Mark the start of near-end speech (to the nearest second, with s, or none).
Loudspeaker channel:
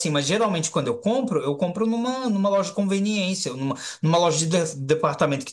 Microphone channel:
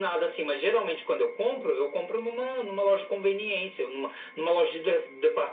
none